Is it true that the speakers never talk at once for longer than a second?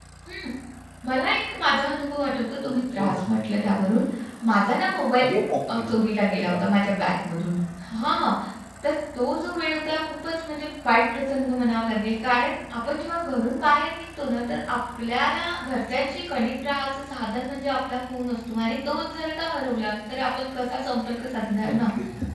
Yes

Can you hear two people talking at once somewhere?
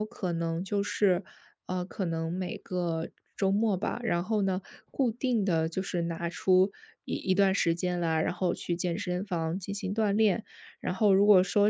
No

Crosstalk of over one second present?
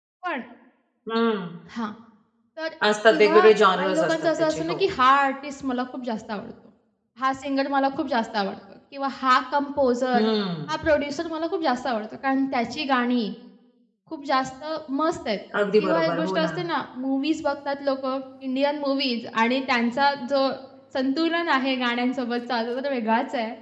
Yes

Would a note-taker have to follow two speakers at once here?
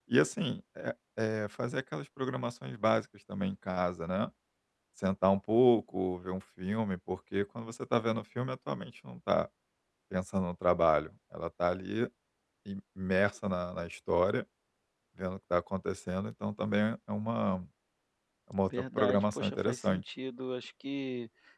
Yes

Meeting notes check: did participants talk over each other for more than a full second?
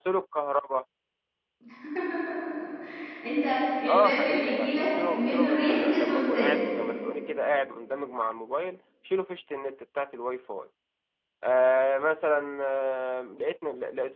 Yes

